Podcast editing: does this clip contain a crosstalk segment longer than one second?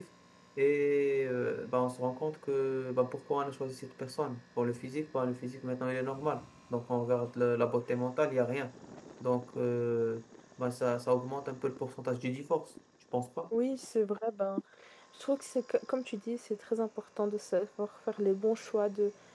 No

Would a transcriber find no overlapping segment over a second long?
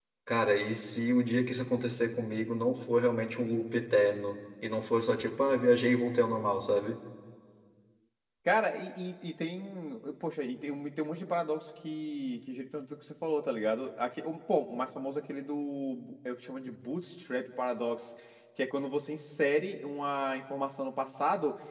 Yes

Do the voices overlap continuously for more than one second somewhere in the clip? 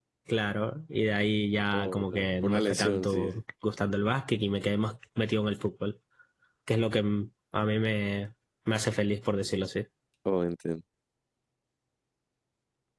Yes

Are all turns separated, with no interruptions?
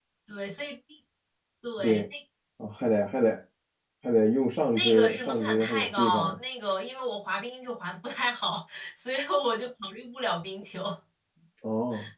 No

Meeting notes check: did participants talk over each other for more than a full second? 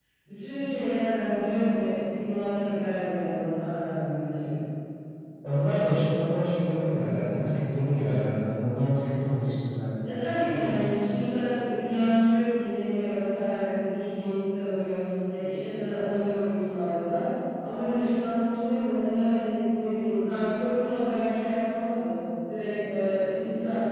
No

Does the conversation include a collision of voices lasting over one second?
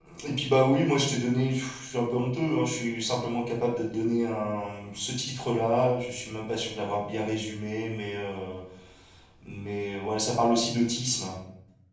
No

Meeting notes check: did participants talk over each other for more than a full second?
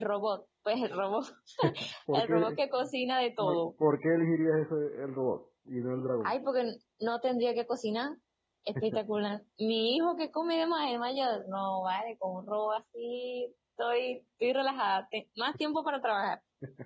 No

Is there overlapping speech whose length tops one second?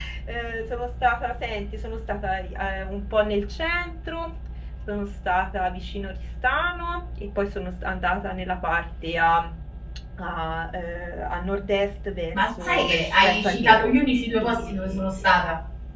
Yes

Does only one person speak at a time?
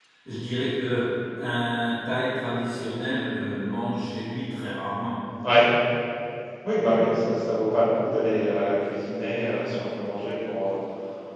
Yes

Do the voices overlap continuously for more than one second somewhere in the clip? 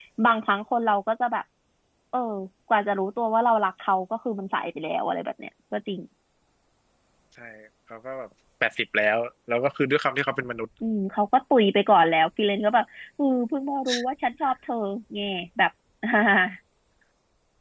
No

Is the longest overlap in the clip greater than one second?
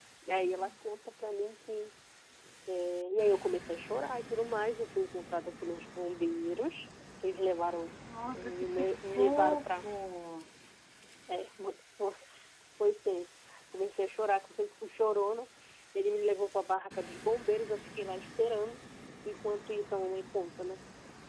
Yes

